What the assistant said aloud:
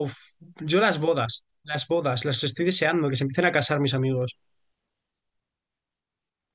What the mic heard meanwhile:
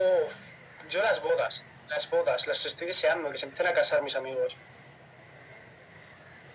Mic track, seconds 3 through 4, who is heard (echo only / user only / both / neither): echo only